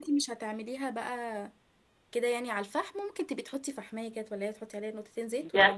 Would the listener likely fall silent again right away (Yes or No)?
No